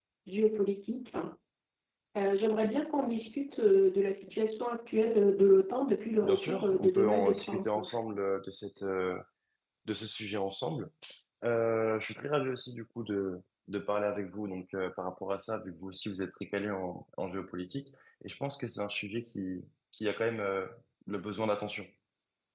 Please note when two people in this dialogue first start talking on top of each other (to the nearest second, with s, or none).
6 s